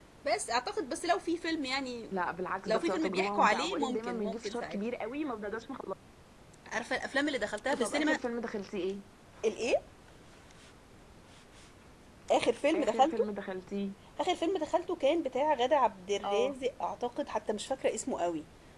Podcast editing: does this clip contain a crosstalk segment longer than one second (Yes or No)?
Yes